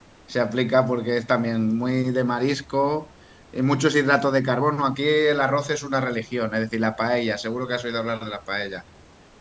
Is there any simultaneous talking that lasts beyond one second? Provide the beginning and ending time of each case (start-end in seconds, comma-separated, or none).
none